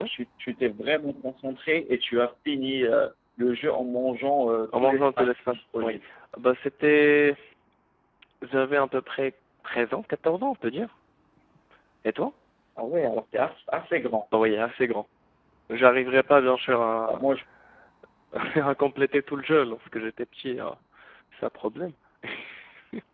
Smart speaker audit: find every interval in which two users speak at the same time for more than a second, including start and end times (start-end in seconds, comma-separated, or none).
4.7-5.9